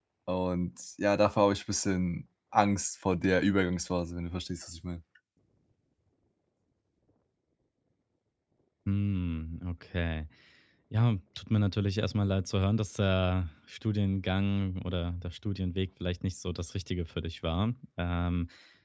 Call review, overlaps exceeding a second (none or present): none